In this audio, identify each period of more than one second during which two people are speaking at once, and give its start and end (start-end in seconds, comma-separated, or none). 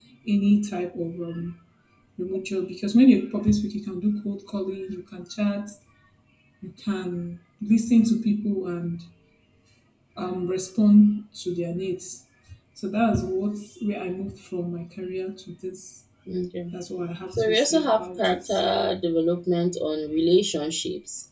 17.3-18.6